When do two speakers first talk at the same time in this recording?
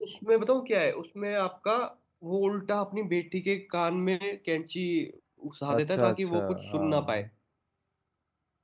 5.8 s

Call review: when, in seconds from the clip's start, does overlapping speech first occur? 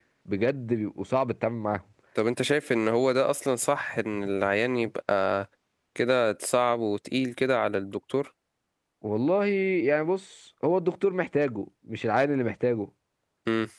none

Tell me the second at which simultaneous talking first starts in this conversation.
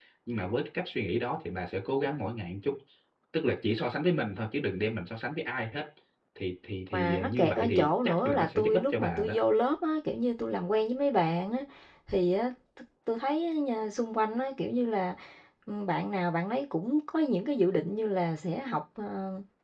6.9 s

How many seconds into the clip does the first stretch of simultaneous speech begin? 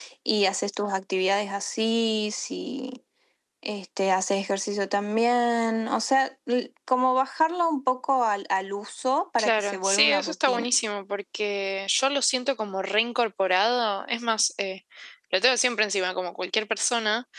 9.4 s

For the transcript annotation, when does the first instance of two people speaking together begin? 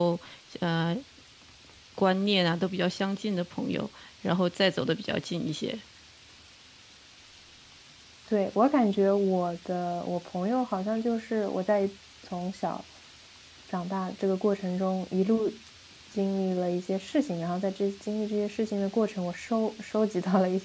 none

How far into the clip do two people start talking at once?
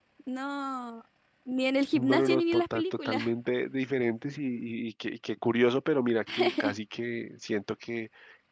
1.9 s

